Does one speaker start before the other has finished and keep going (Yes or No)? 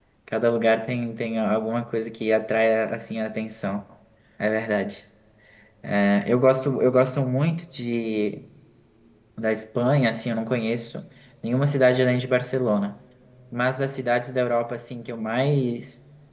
No